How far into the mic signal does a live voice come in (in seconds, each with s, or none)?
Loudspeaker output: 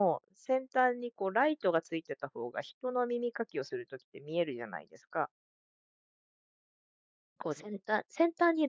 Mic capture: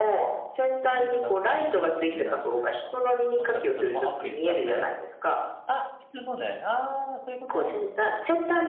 0.8 s